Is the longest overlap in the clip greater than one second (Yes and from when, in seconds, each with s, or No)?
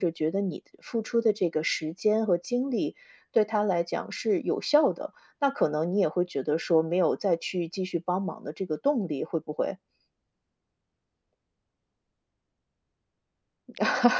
No